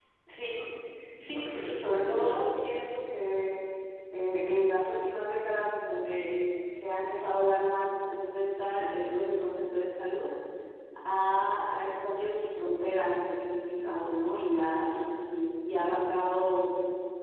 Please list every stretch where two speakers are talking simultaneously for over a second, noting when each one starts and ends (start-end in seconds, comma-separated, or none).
1.2-2.4